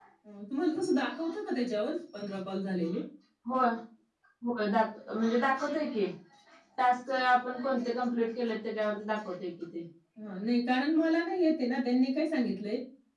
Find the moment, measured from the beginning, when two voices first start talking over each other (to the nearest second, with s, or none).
none